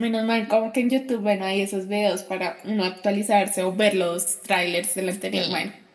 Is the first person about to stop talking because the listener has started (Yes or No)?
Yes